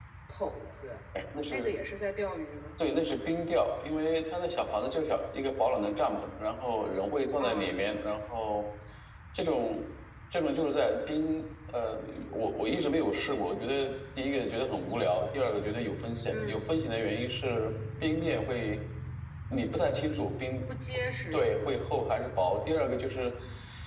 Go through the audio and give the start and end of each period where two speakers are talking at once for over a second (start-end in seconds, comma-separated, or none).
none